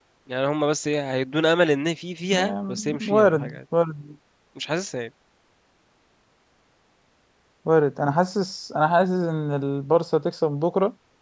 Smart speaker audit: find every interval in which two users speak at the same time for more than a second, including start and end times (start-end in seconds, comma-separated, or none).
2.3-3.6